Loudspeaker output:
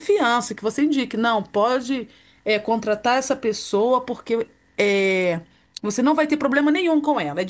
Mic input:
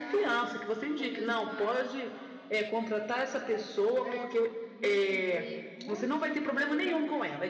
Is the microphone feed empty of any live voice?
No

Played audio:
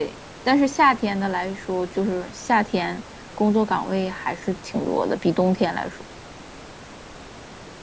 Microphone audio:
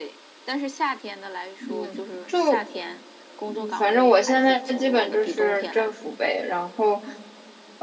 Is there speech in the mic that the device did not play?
Yes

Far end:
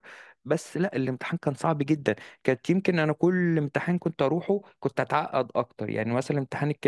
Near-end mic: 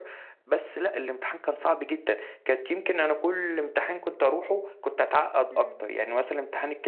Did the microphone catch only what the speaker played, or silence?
No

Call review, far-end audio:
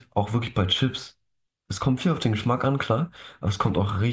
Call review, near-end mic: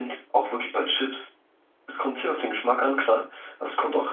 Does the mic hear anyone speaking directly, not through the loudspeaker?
No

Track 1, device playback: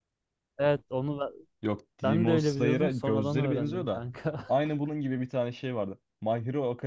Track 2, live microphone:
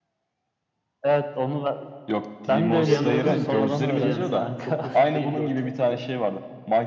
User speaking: Yes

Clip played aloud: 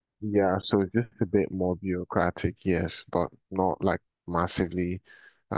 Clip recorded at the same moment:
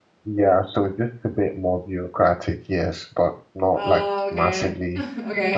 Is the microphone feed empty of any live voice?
No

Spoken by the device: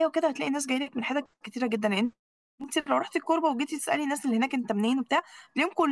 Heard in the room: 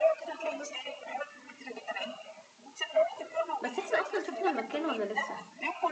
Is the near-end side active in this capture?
Yes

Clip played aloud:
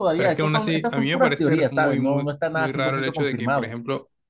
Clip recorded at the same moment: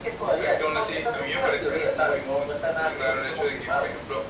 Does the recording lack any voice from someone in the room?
Yes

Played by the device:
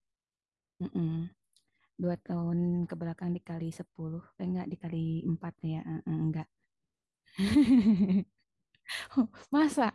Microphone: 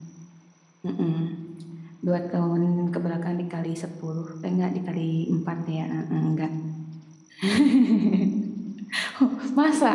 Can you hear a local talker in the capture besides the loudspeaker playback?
No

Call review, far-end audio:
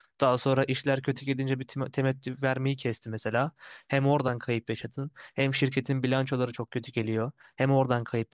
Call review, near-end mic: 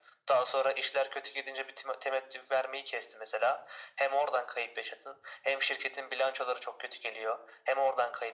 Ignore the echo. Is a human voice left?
No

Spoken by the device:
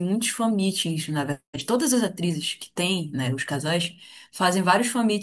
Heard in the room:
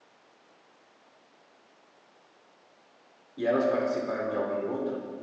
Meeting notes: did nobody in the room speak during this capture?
No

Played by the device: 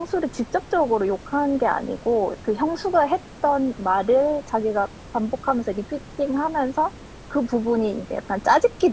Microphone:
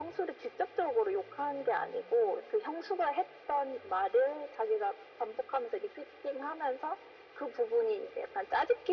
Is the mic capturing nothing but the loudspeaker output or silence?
Yes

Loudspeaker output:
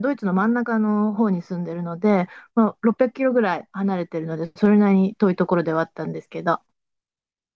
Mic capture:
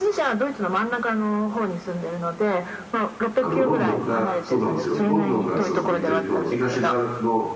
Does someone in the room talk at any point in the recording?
Yes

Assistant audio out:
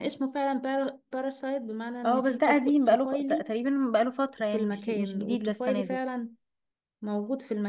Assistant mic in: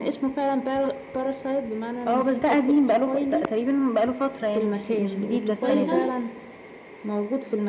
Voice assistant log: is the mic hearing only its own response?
No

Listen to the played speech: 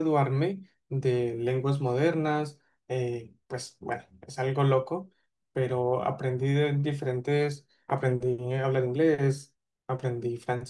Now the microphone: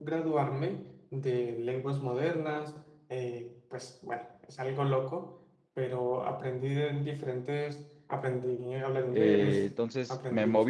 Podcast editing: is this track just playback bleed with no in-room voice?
No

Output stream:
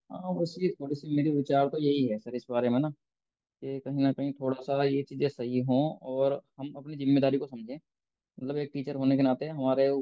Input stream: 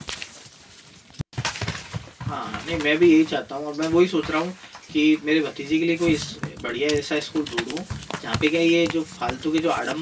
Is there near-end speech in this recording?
Yes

